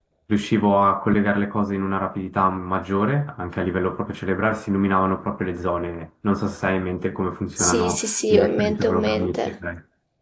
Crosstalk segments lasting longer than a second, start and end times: 7.6-9.5

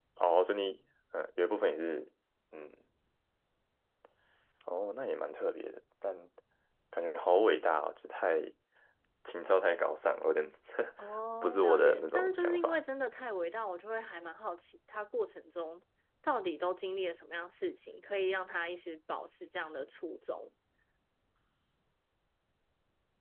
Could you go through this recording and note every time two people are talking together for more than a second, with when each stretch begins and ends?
11.4-12.8

